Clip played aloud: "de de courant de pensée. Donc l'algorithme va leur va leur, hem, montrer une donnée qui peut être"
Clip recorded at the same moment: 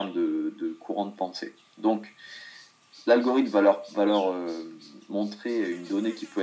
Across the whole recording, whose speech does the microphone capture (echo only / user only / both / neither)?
echo only